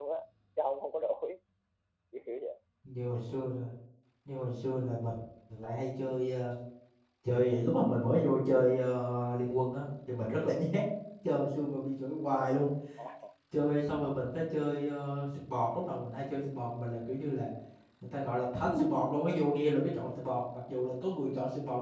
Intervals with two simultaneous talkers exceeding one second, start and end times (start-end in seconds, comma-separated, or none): none